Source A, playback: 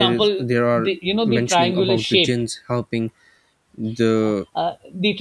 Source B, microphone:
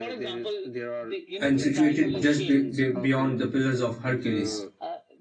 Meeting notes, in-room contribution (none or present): present